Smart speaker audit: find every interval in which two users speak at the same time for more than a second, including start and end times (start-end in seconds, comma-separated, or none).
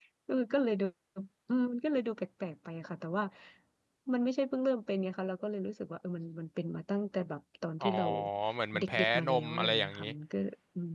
8.8-10.0